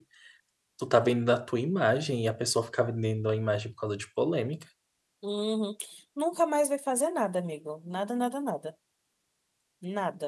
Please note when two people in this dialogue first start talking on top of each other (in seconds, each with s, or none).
none